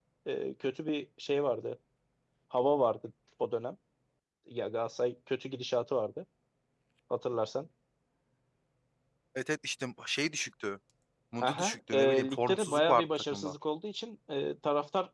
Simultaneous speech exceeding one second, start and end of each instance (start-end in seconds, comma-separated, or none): 11.4-13.5